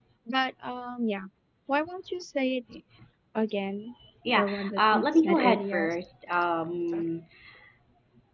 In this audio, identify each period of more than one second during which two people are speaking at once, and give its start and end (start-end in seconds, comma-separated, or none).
4.3-5.9